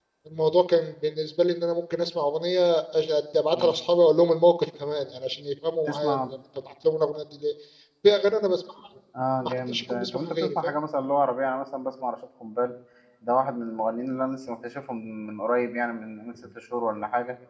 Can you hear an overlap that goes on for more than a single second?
Yes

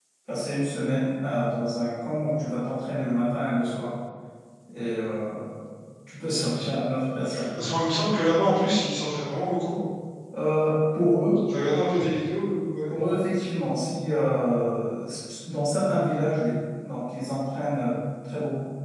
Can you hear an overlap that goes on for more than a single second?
No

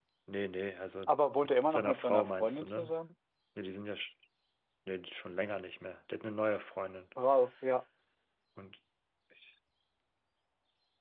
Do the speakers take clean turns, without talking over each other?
No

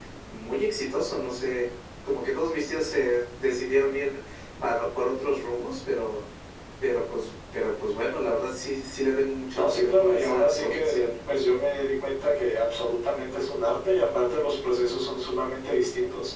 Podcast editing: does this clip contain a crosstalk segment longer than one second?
Yes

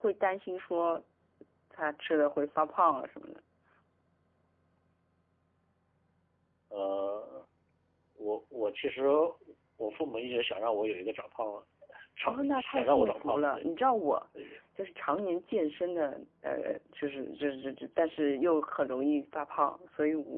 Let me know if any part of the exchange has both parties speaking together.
Yes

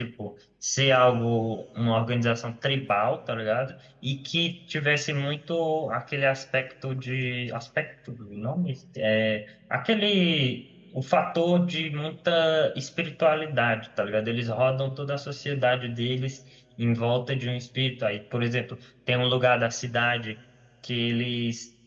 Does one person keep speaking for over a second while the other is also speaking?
No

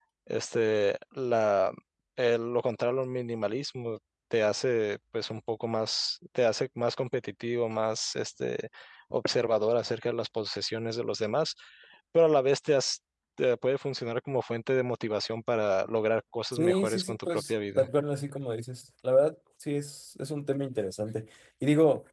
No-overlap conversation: No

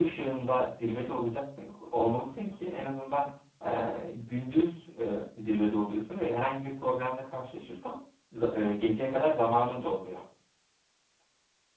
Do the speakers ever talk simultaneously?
No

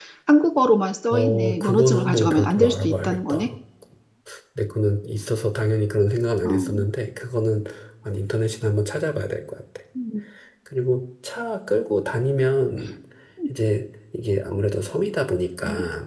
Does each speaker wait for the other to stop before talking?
No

